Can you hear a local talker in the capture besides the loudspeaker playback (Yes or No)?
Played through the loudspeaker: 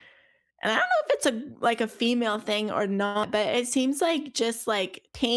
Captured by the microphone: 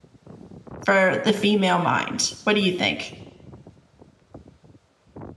Yes